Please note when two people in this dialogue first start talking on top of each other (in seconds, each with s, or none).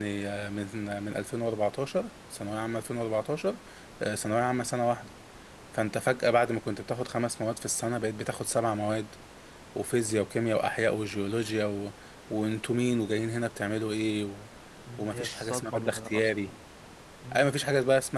15.0 s